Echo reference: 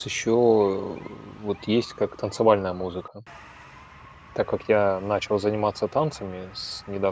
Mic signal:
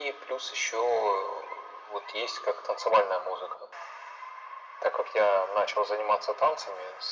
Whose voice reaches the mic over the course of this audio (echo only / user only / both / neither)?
echo only